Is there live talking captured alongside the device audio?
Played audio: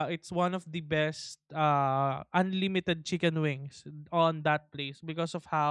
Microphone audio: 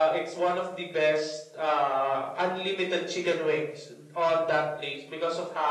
No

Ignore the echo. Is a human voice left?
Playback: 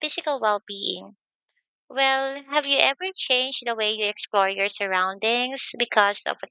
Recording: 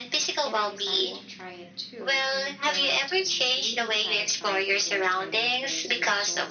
Yes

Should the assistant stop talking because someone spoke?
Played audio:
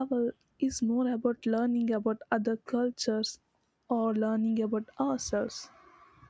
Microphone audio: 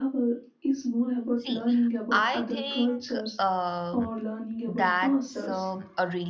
Yes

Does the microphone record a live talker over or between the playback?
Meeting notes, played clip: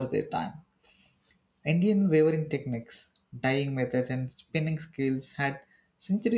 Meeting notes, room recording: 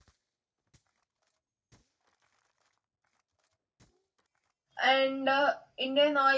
Yes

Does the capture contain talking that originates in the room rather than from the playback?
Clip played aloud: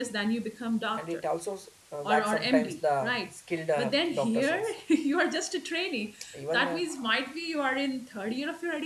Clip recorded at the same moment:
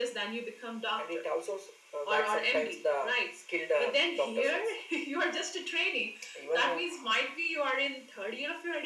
No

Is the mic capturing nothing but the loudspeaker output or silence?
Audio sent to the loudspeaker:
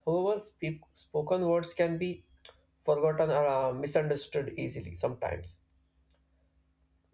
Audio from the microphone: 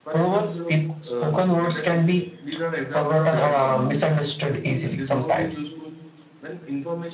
No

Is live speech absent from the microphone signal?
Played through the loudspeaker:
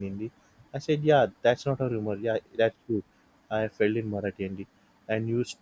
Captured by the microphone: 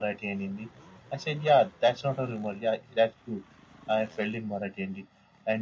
Yes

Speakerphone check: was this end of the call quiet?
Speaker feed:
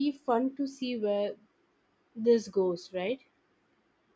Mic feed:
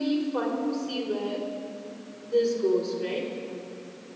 Yes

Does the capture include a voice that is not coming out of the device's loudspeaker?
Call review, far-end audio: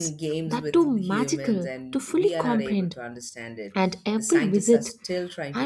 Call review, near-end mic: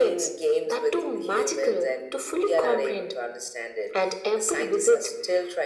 No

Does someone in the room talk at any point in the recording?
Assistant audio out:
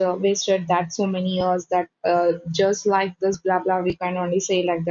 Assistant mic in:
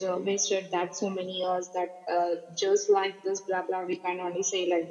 No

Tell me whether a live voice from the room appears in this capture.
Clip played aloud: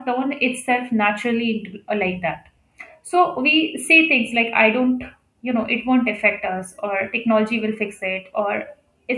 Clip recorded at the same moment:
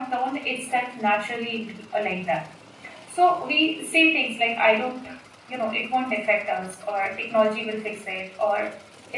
No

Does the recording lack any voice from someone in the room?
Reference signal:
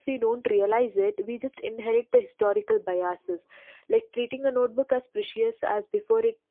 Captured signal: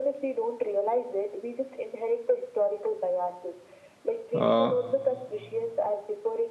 No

